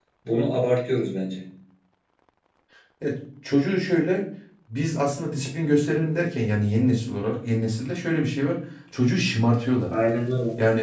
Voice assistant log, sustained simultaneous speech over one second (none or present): none